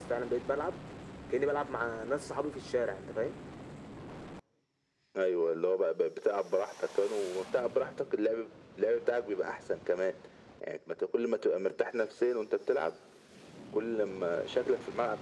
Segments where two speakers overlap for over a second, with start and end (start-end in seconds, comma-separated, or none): none